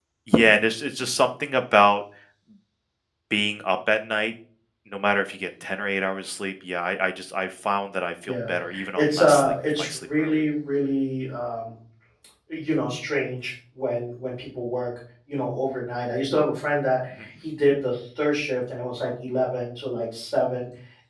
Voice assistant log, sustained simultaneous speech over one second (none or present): present